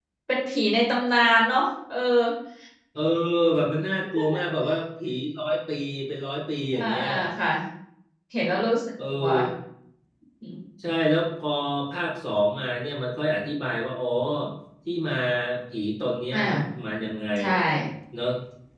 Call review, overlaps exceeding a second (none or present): none